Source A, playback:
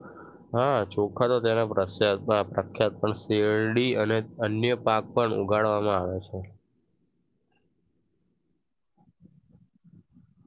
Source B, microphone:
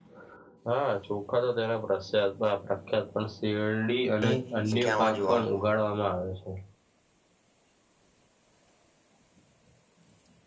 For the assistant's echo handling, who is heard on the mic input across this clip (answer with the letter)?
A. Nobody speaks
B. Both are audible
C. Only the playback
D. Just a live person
B